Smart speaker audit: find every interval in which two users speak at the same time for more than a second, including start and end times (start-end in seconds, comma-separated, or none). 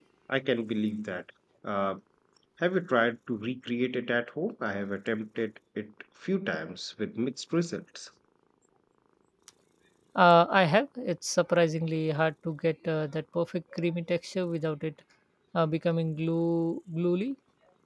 none